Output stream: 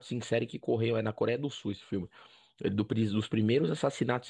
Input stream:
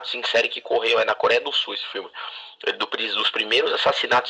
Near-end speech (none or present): none